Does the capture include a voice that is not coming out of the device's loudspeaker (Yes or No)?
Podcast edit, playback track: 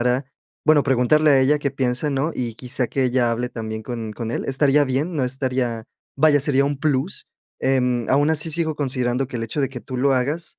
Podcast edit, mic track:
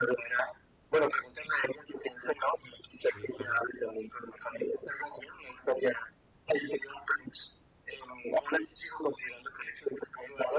Yes